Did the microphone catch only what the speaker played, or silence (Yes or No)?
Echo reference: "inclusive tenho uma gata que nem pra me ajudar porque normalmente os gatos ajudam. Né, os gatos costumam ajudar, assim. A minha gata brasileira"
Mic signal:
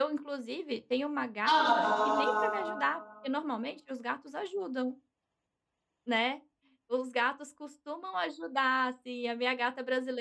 No